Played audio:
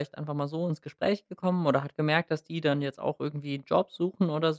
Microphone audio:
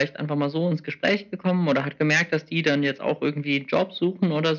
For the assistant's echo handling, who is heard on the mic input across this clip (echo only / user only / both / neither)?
echo only